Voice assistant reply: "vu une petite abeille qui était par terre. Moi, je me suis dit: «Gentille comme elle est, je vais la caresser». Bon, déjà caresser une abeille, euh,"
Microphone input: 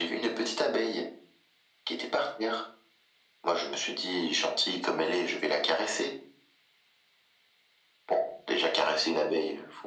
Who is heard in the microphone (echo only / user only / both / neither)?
echo only